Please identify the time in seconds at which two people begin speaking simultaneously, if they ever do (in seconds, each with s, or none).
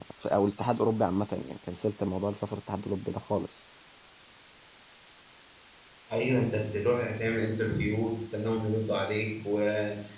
none